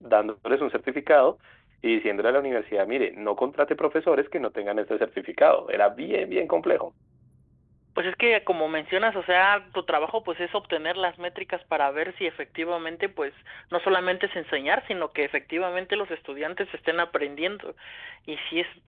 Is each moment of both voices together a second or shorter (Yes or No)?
Yes